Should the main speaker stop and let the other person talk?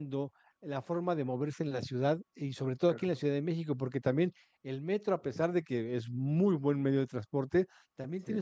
No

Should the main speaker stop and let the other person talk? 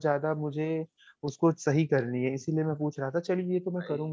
No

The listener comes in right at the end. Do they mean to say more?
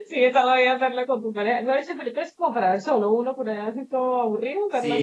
Yes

